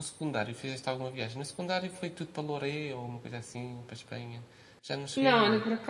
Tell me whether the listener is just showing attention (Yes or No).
No